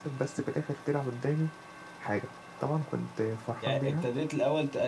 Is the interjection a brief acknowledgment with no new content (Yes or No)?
No